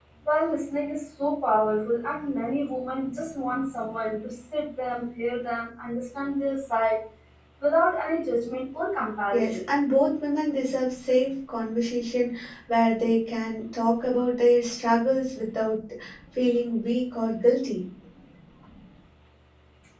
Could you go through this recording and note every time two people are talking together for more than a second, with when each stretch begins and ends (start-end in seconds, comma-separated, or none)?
none